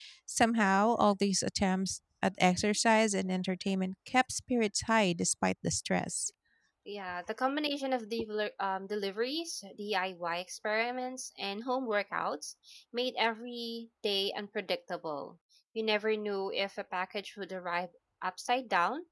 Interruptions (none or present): none